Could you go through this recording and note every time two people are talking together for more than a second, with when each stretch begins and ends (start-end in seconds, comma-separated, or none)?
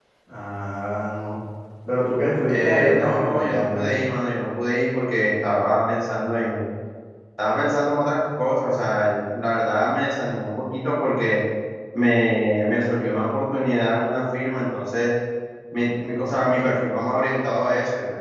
2.5-4.0